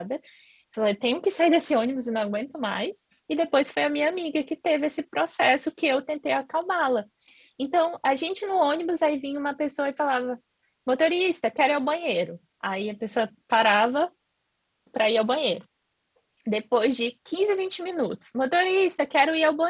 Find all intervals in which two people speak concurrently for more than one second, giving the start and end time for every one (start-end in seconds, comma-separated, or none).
none